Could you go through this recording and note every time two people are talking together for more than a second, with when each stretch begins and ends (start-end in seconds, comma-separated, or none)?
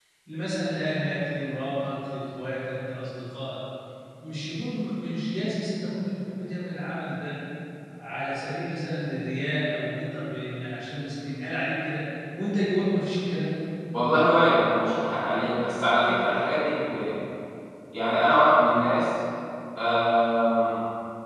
none